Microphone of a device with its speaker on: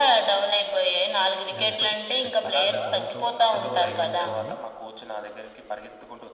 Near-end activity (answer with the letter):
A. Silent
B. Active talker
B